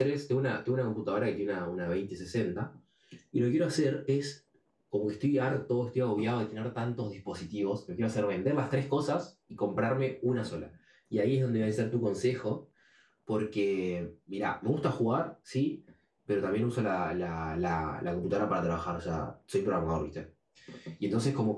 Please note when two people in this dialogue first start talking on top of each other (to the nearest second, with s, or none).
none